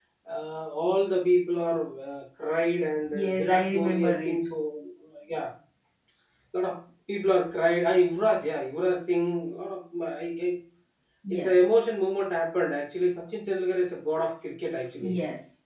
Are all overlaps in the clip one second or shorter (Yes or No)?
No